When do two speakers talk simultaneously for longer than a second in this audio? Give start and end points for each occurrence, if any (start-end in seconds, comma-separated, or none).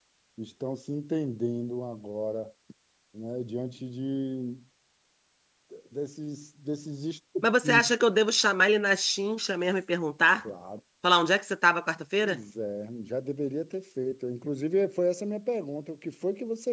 none